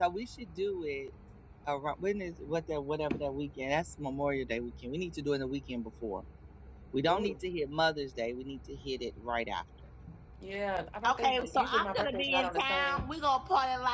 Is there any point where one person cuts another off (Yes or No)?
Yes